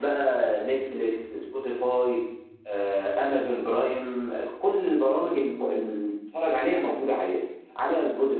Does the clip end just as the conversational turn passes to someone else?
No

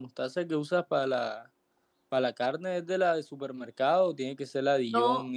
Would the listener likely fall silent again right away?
Yes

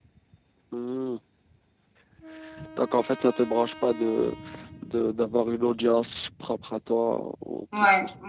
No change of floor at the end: No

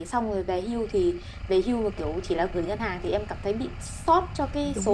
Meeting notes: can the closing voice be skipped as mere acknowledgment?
No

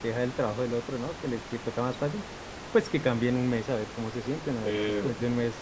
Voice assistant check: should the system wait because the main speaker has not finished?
Yes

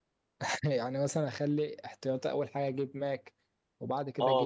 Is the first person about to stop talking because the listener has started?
Yes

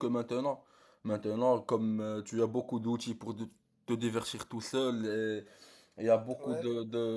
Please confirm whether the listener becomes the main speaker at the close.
No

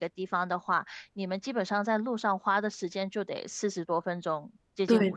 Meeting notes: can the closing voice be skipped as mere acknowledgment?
No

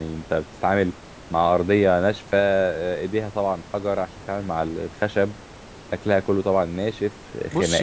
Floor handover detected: Yes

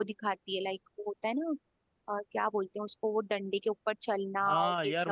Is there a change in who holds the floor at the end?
Yes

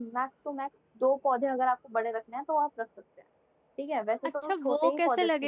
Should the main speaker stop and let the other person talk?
Yes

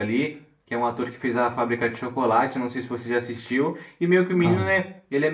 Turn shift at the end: No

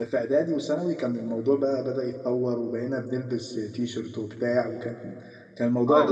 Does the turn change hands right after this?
Yes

